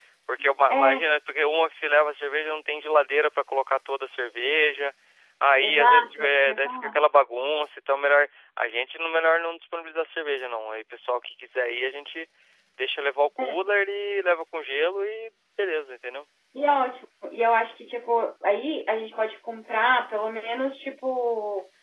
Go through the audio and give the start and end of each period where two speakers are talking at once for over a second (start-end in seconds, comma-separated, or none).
5.6-7.0